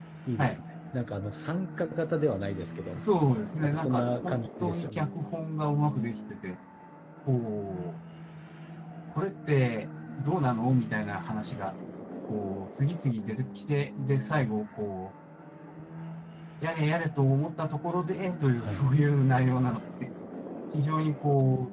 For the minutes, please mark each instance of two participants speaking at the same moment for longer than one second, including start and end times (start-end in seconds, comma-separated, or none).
3.6-5.0